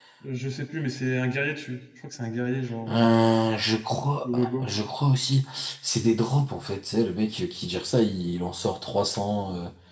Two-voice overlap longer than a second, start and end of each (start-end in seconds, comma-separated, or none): none